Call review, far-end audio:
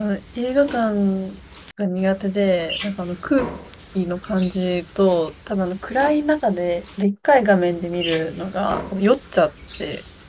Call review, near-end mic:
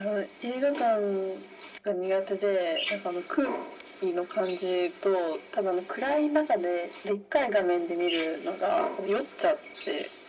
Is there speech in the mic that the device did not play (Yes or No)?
No